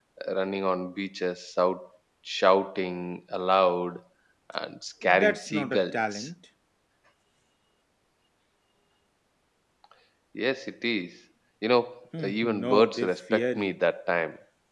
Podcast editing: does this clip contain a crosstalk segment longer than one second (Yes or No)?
Yes